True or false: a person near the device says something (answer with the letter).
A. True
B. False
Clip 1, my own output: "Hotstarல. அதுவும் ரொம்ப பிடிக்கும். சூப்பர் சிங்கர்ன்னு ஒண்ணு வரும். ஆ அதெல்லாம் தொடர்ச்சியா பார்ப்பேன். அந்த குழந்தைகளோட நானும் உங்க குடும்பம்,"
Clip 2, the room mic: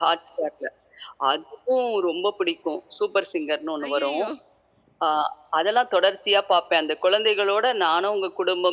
A